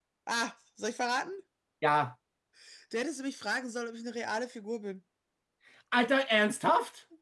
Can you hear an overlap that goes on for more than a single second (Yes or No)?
No